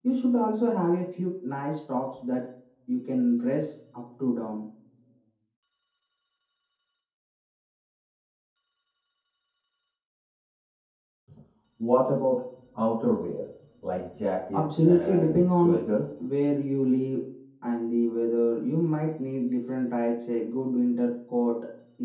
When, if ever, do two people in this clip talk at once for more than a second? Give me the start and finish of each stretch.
14.5-15.8

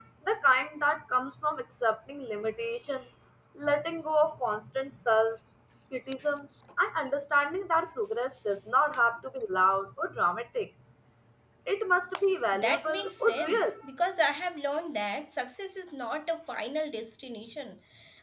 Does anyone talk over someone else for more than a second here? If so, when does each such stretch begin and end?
12.5-13.7

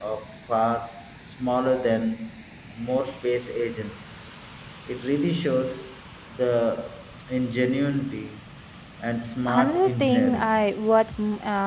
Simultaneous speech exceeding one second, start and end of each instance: 9.5-10.7

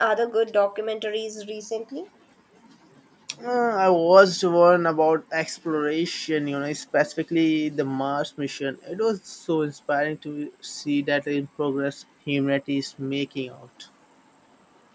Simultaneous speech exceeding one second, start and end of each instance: none

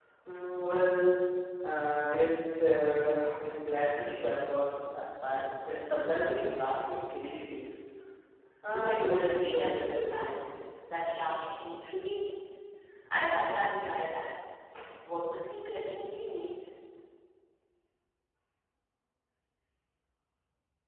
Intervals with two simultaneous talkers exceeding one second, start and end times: 8.7-10.4

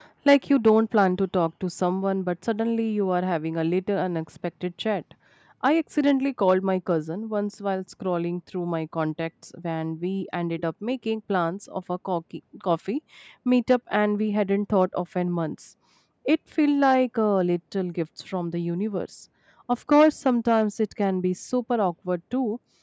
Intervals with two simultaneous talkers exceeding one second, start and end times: none

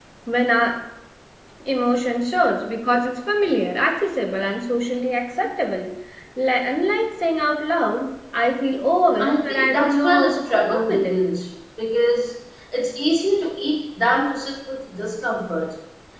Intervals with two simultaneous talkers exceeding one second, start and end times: 9.2-11.1

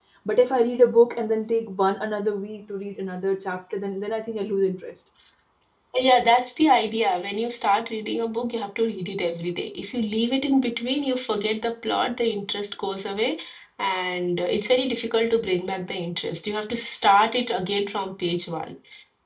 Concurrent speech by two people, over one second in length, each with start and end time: none

